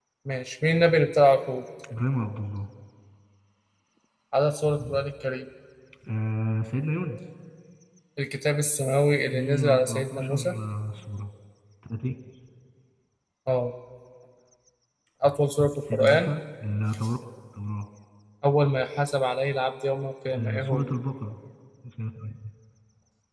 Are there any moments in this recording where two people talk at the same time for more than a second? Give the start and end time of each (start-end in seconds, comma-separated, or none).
9.3-10.5